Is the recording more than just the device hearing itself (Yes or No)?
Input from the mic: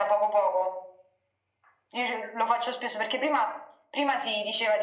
No